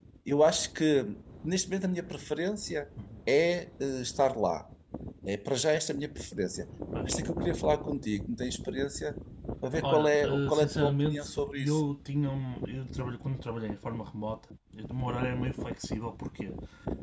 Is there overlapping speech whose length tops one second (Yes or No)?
Yes